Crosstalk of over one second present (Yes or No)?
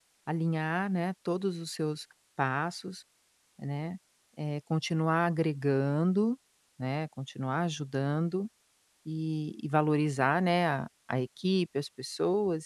No